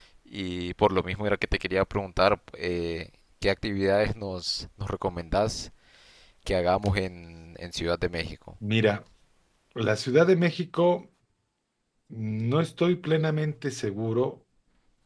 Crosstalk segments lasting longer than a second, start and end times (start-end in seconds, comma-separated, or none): none